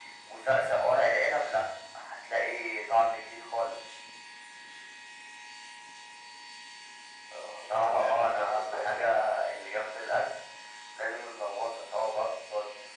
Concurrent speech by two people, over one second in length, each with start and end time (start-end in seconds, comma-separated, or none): 7.7-9.1